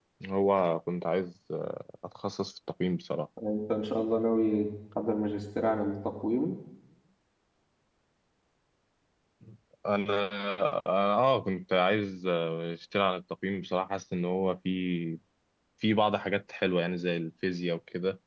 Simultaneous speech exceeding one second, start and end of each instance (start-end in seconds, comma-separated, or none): none